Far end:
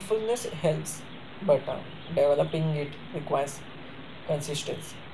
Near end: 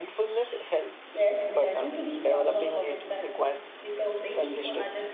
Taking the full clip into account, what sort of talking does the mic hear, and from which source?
both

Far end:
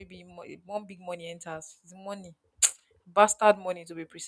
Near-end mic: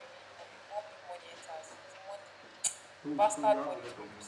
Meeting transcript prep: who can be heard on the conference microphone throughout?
both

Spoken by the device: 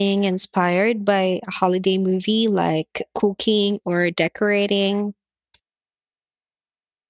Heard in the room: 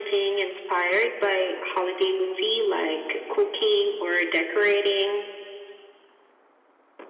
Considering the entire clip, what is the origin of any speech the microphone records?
echo only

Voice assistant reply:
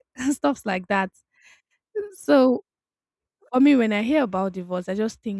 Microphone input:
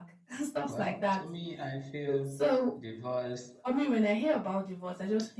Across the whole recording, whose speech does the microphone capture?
both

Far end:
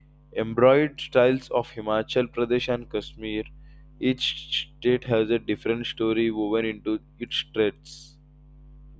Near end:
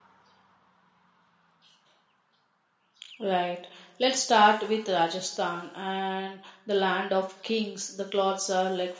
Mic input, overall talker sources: user only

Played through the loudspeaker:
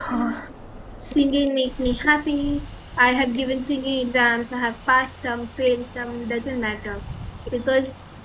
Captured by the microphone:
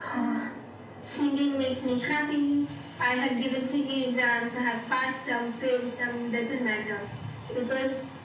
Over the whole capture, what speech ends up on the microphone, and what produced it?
both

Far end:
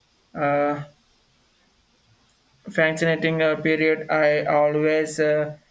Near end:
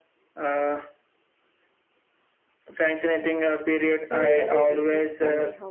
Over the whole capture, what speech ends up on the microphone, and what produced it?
both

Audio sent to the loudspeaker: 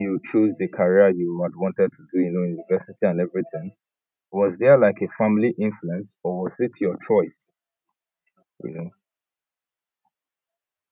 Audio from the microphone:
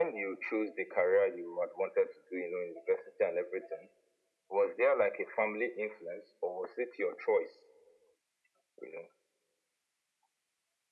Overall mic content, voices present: echo only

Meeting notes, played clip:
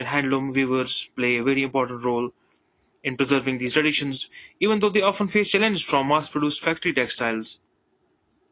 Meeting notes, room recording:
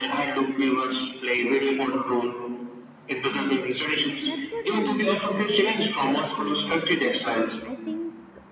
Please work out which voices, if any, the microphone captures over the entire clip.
both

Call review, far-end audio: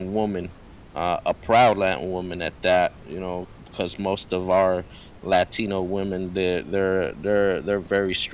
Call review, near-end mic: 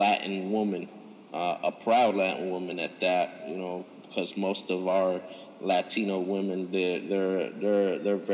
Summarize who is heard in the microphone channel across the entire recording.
echo only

